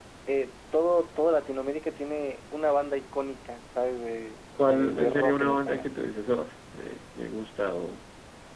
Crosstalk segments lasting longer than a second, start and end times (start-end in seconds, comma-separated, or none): 4.6-5.9